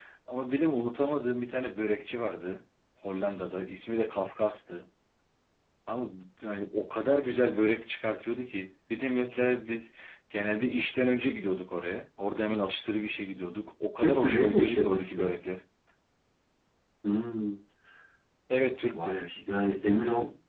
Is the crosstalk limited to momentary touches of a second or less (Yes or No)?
No